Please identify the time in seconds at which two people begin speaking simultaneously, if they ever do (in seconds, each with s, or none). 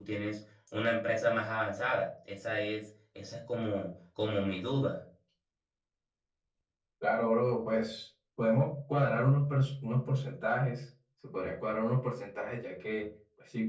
none